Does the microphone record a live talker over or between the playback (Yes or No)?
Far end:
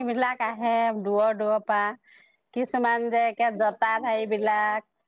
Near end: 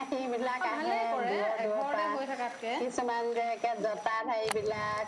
Yes